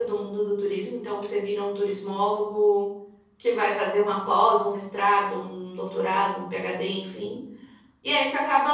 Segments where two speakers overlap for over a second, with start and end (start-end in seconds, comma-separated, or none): none